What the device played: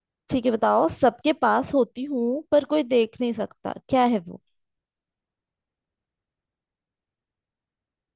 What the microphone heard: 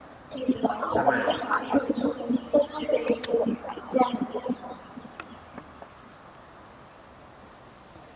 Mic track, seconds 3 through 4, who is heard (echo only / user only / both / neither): echo only